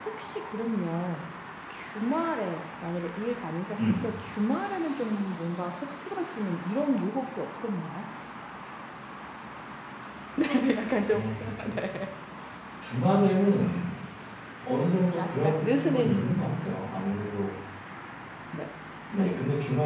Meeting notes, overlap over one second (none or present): present